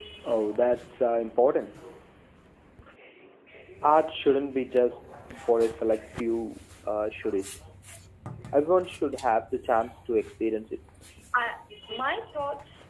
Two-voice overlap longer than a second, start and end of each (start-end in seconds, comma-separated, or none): none